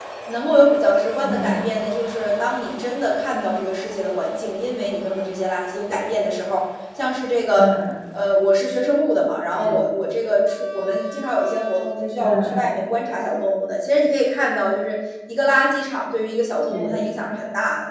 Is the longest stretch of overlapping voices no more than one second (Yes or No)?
Yes